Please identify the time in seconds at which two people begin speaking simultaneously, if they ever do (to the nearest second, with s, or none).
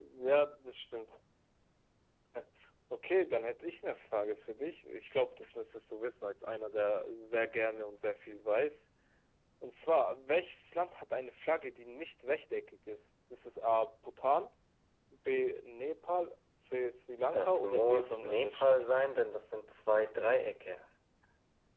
17 s